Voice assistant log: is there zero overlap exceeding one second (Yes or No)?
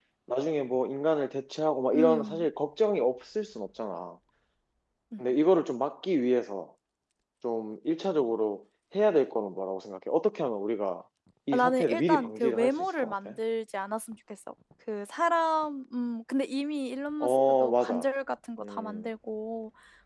No